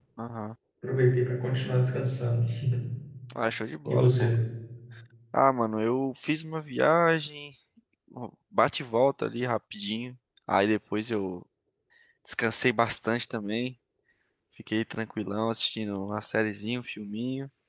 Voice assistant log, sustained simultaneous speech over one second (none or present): none